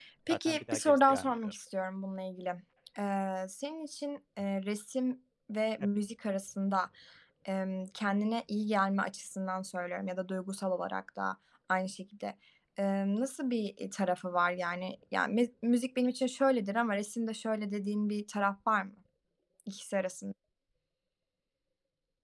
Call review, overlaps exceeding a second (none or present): present